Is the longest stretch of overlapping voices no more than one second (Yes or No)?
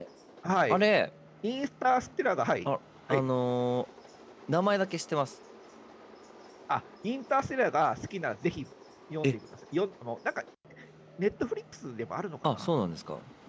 Yes